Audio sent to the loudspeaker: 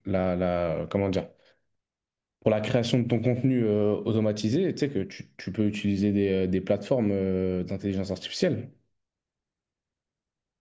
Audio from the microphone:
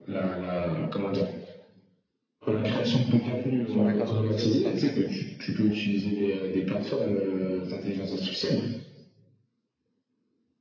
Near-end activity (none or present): present